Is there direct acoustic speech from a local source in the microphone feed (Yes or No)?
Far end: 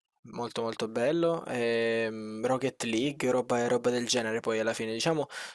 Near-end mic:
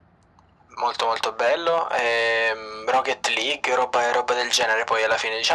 No